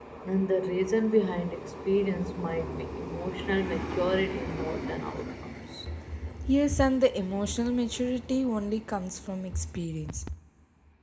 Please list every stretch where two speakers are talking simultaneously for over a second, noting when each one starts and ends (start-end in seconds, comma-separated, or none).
none